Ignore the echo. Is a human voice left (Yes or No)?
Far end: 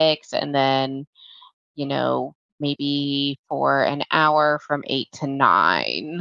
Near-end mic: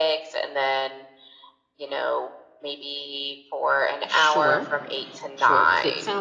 Yes